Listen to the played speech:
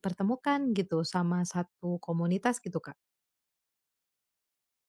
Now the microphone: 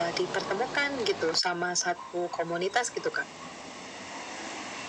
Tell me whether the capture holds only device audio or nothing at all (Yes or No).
Yes